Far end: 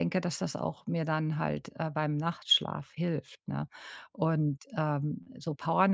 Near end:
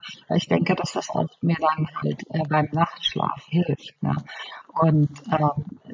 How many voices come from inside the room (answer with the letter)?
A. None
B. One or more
A